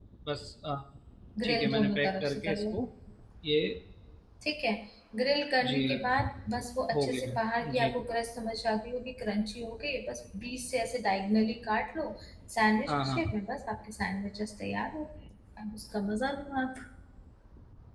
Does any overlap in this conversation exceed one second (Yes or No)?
Yes